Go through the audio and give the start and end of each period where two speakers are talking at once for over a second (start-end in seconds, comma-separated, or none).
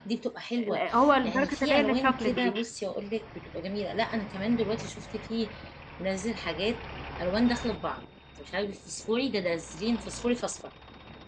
1.2-2.5